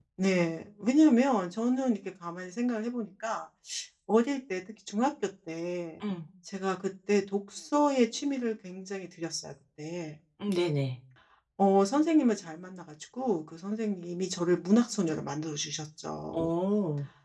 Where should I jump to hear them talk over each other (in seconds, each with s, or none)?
none